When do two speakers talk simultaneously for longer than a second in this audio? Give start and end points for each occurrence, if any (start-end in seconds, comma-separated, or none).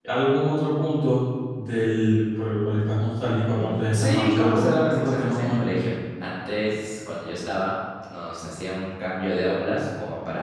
3.5-5.7